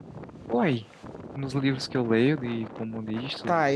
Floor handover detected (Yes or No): Yes